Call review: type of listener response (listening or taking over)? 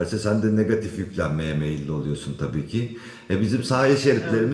listening